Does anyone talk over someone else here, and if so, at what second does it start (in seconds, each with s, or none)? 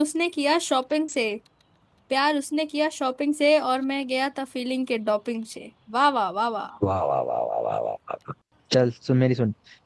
none